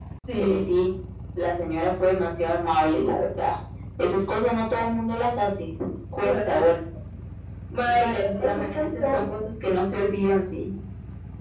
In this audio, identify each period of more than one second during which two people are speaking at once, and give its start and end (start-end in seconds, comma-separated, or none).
7.8-9.3